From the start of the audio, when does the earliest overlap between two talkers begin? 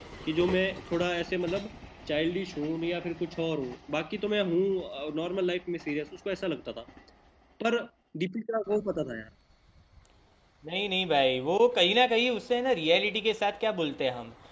none

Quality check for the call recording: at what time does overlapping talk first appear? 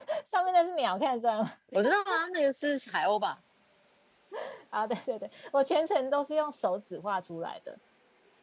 none

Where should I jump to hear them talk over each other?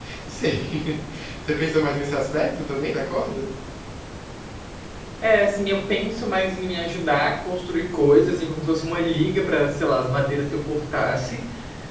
none

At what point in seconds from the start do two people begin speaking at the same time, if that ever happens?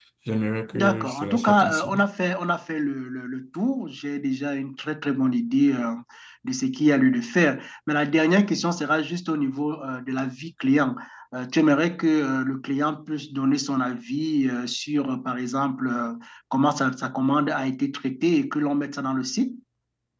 0.7 s

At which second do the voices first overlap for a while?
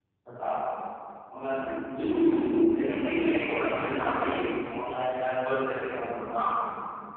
2.8 s

